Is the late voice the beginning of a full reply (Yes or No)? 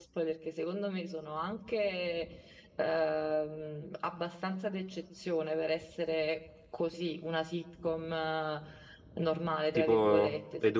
Yes